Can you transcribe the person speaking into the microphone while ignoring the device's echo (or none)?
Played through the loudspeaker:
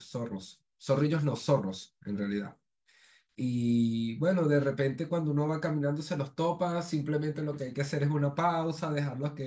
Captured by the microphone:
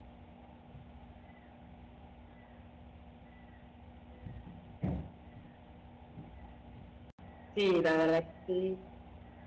Sí, la verdad que sí.